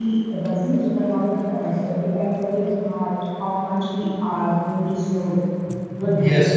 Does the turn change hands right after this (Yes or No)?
Yes